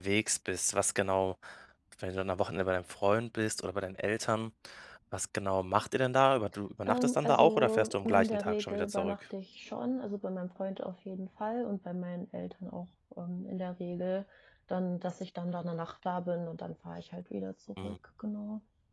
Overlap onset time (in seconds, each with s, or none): 6.9 s